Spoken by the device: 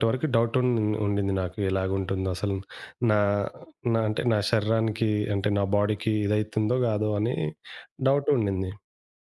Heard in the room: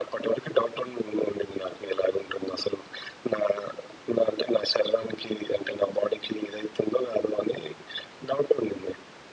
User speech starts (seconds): none

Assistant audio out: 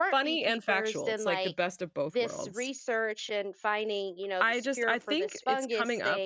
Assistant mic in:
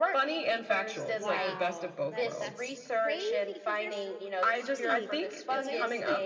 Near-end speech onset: 1.0 s

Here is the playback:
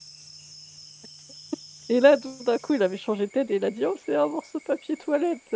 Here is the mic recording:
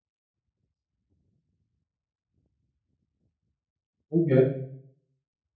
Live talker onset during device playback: 4.1 s

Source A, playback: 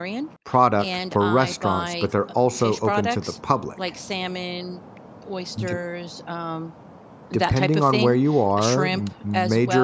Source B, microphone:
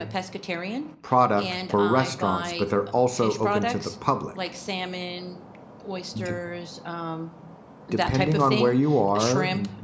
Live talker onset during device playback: none

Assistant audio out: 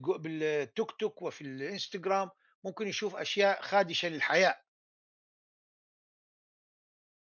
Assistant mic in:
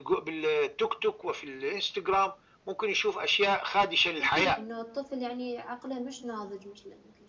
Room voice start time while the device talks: 4.2 s

